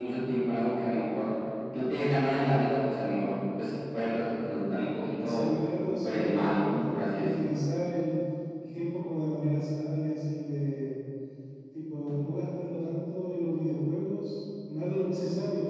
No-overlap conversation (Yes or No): No